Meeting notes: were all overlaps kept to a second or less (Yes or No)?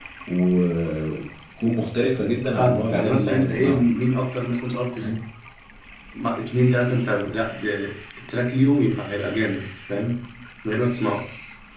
No